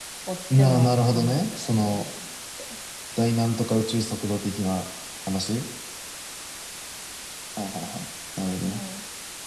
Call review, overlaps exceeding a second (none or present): present